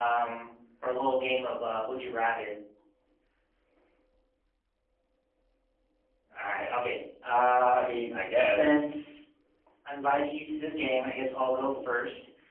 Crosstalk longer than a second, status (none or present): none